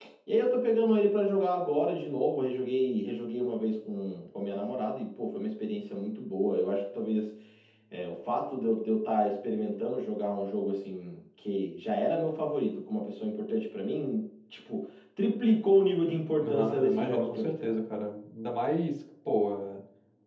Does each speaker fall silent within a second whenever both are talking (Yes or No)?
No